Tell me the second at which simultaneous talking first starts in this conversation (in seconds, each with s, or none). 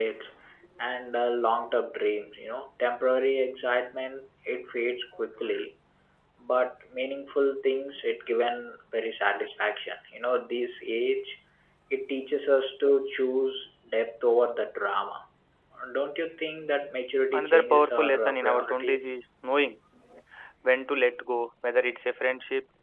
17.3 s